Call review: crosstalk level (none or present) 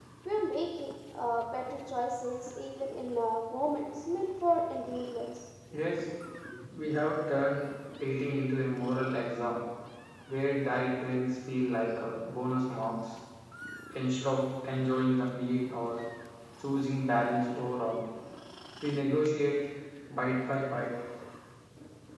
none